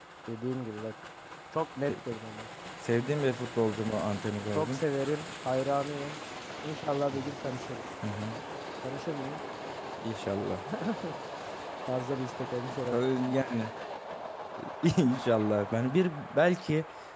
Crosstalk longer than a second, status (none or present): none